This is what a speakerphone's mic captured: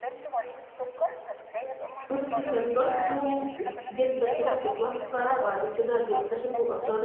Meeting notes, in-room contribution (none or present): present